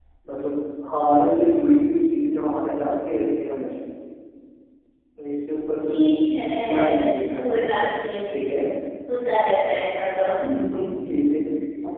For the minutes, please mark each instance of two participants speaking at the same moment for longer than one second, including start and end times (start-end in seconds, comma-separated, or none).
none